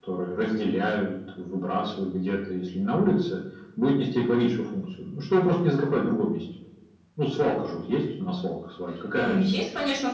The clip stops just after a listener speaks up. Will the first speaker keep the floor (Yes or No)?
No